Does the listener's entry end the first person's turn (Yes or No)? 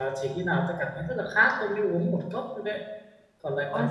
Yes